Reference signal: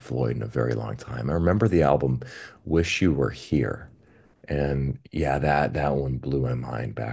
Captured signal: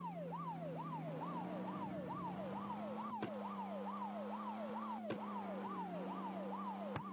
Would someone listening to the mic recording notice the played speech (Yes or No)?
No